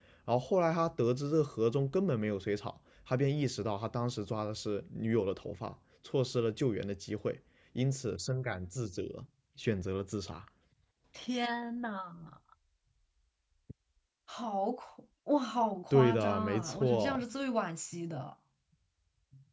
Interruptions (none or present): present